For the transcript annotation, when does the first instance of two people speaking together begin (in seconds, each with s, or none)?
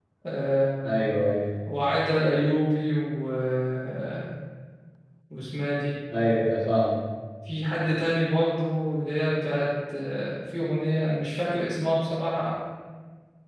none